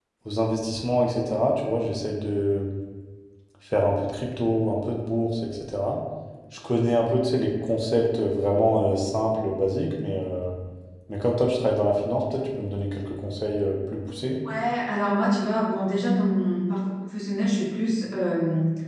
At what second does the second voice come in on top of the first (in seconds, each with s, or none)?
none